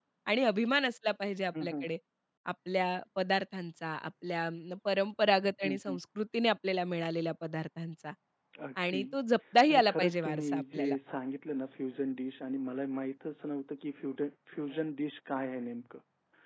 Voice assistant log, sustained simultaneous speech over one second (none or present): present